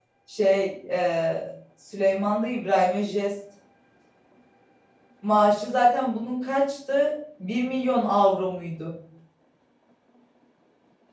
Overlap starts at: none

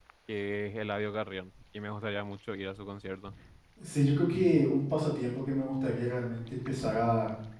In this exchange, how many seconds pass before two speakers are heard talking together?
none

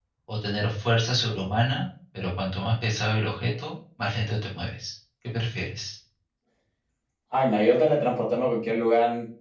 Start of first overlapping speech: none

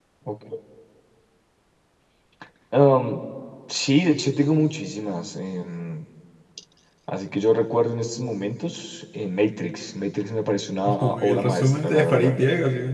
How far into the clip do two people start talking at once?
11 s

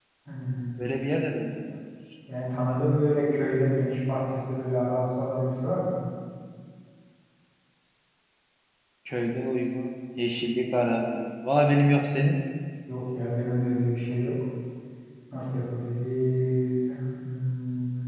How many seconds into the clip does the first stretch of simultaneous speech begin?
none

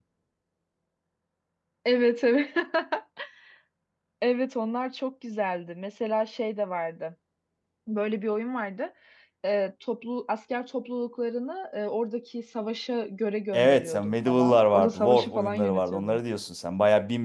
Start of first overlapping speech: 14 s

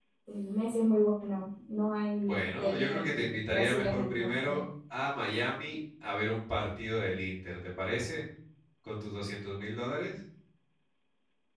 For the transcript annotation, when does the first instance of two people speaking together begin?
2 s

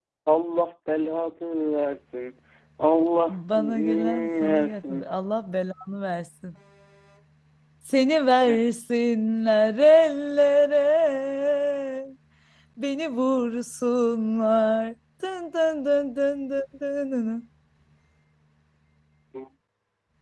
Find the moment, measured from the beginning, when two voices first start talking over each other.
3 s

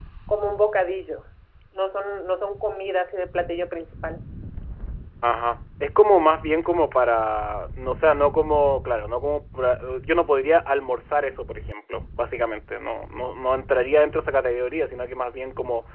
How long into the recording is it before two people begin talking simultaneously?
none

